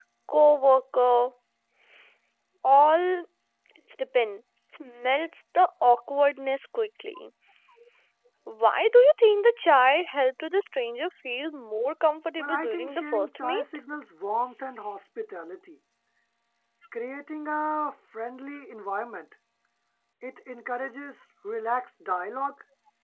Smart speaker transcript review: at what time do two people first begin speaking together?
12.4 s

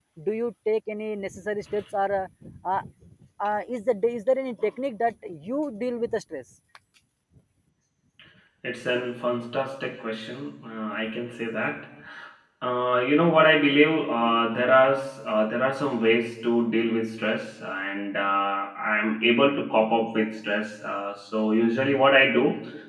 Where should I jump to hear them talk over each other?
none

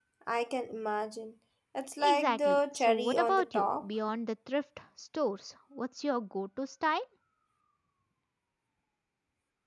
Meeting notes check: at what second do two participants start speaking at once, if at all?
2.0 s

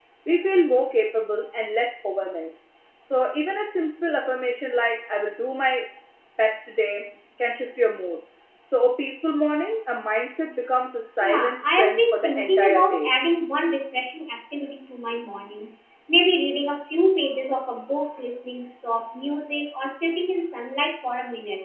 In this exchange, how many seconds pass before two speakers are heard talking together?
11.2 s

